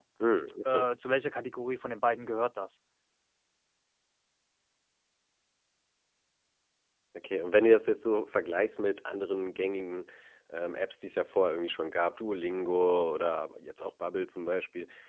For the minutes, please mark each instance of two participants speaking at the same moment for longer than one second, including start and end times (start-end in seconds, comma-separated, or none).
none